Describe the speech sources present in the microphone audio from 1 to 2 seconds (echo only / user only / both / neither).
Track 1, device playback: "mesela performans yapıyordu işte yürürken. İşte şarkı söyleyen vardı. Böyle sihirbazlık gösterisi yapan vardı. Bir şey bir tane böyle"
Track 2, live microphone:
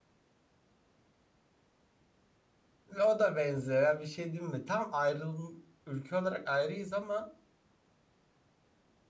neither